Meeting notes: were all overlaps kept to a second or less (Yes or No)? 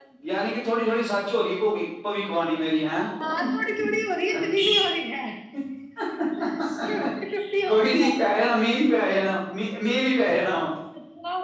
Yes